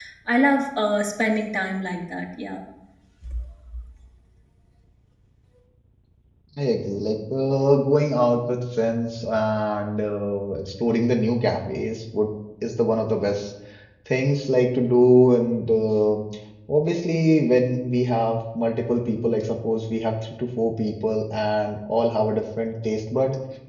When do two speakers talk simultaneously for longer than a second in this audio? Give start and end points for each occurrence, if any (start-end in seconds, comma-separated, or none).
none